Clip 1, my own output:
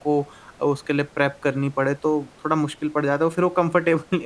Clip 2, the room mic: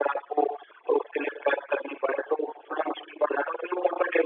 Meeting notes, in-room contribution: none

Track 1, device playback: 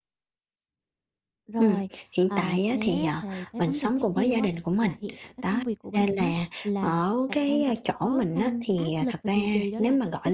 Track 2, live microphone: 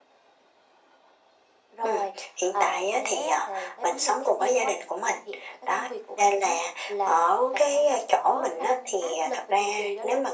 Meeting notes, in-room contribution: none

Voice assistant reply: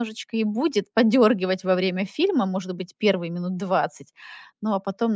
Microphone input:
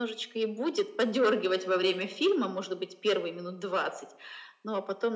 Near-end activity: none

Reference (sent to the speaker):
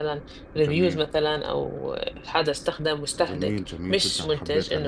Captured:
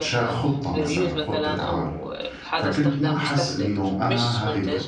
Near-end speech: present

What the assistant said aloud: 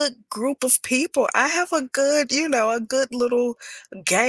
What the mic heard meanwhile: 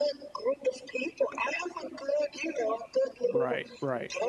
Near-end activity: present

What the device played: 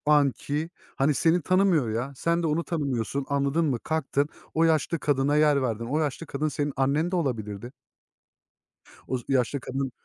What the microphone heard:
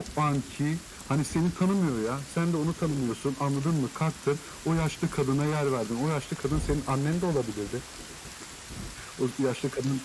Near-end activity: none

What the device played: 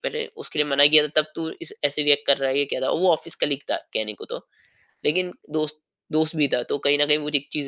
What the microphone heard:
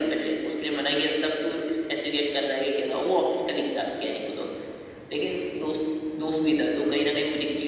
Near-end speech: none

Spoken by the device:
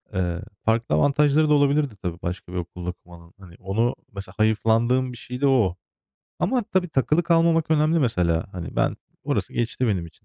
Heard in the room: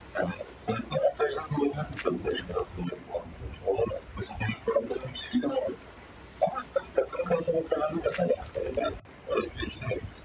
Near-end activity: none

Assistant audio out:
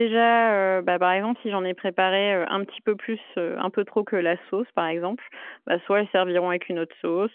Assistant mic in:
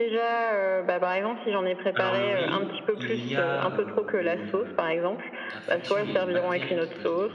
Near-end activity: present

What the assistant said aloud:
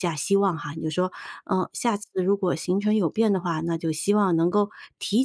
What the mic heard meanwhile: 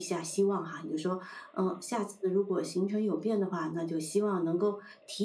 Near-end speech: none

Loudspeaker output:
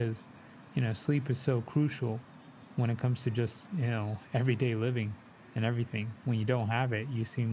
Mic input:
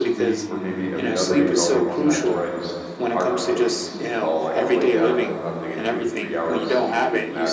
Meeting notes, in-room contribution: present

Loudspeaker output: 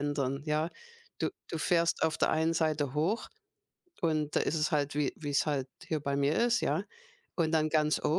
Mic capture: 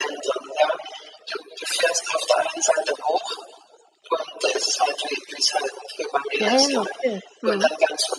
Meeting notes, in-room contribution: present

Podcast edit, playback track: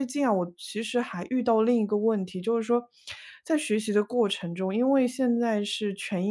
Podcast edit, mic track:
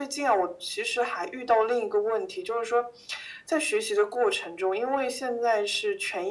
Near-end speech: none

